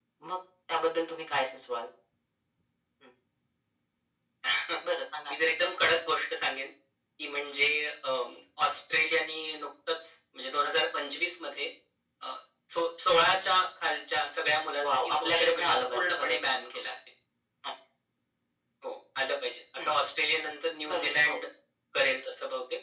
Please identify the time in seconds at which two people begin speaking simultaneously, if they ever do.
14.8 s

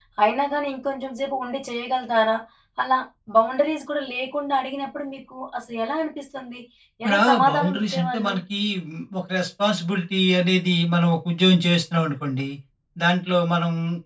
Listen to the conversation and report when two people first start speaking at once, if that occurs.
7.0 s

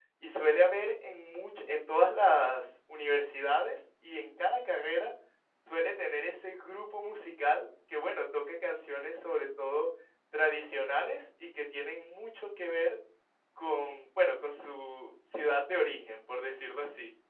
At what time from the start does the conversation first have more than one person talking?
none

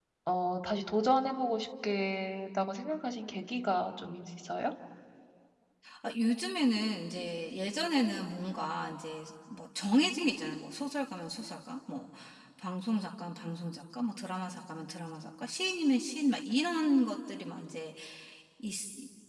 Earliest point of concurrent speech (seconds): none

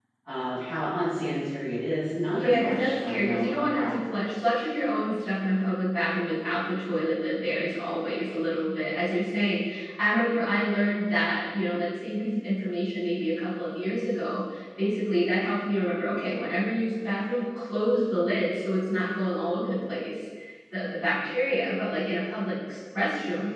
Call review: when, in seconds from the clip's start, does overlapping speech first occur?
2.3 s

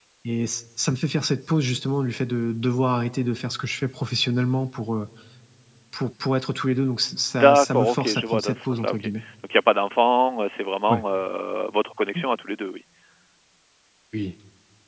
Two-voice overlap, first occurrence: 7.4 s

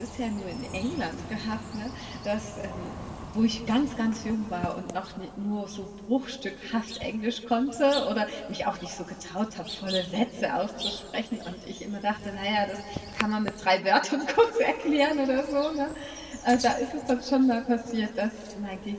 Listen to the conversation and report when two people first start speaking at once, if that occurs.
none

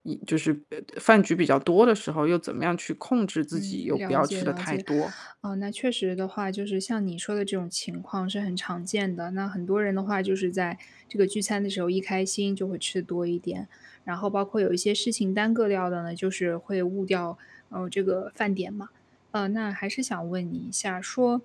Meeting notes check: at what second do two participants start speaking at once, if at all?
3.5 s

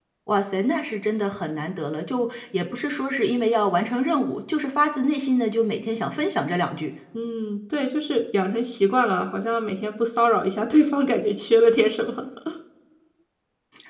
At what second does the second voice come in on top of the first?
none

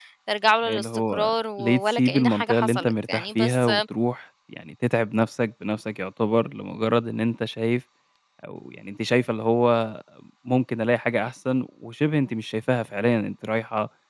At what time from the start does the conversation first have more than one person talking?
0.7 s

